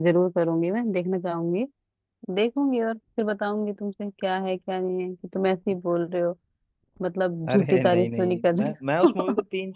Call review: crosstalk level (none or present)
present